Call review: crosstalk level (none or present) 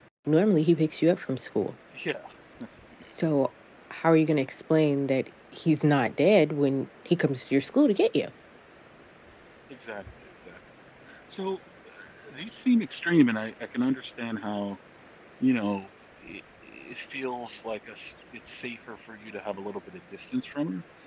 none